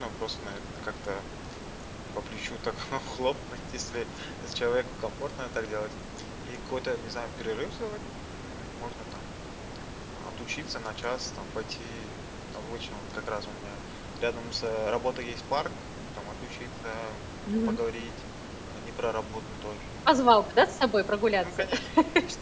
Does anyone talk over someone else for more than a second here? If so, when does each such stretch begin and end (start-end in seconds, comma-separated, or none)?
none